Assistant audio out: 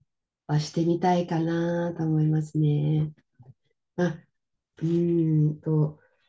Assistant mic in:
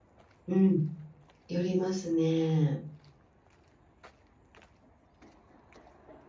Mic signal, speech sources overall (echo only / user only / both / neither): user only